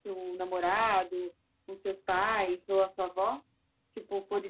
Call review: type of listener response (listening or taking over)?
taking over